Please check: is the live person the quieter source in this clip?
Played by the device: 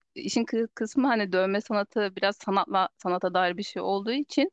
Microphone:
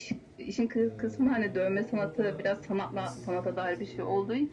Yes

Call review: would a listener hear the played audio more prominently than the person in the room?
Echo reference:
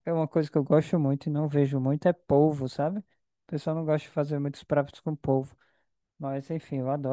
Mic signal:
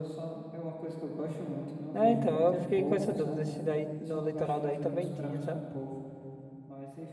No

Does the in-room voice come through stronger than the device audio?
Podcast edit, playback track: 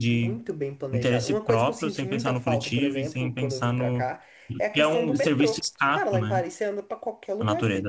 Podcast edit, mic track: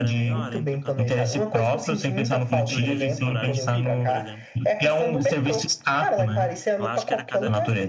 No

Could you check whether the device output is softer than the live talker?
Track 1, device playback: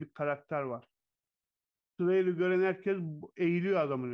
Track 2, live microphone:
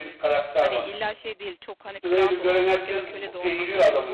No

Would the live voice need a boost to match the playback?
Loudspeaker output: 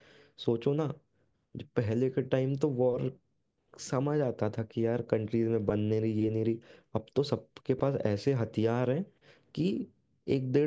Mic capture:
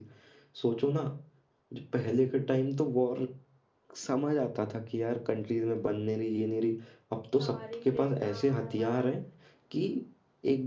Yes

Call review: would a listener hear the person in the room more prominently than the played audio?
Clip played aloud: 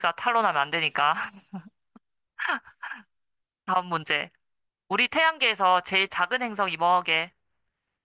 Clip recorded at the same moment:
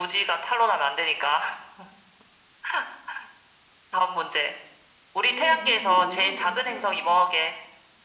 No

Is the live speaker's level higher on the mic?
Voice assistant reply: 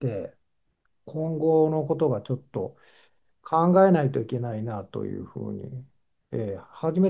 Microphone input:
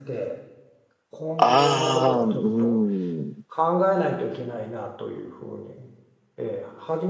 Yes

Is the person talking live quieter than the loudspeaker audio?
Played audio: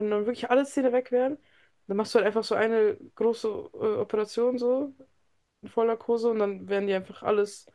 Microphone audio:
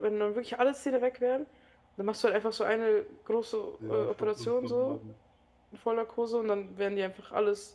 Yes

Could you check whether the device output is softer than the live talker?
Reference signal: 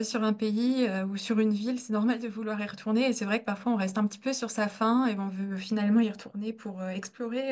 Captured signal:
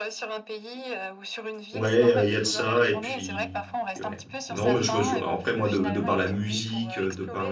Yes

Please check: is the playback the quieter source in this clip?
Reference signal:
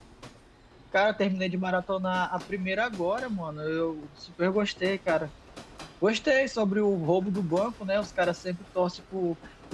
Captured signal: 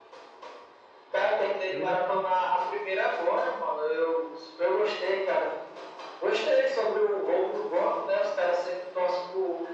No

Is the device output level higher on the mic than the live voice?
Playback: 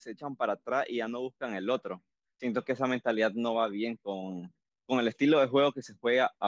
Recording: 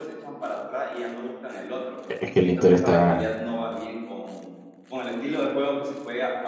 No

